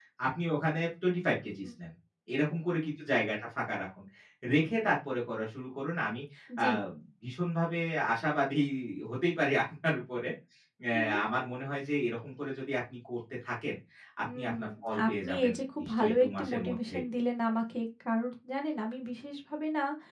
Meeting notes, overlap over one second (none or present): present